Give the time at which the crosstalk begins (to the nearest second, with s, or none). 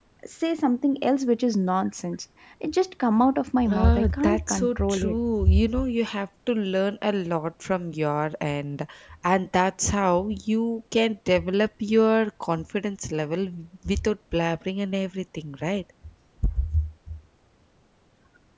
4 s